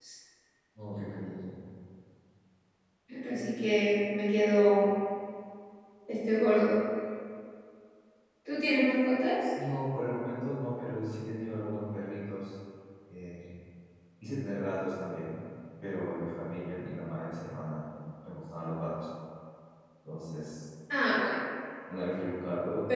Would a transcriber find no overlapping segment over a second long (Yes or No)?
Yes